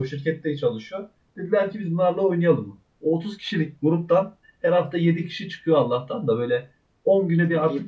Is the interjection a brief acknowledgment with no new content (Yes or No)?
Yes